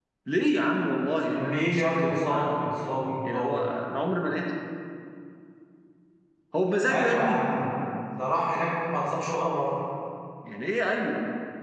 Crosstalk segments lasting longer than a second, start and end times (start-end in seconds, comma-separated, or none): 1.4-2.6